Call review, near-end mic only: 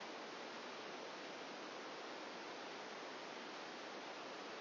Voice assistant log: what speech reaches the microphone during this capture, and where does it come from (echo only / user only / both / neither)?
neither